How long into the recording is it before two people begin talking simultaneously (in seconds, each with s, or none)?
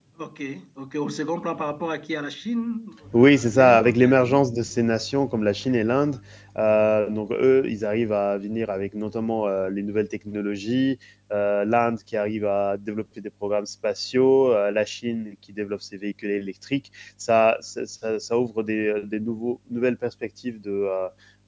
3.1 s